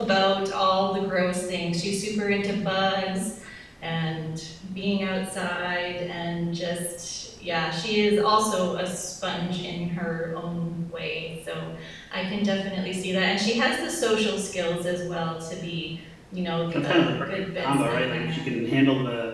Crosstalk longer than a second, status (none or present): present